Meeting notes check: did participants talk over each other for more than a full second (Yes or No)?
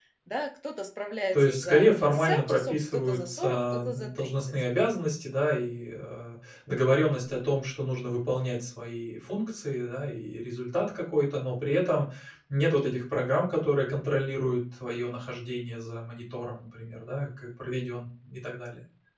Yes